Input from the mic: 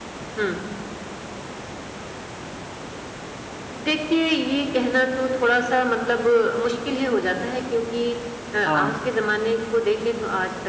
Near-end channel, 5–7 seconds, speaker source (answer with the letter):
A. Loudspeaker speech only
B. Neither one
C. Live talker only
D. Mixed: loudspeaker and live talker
A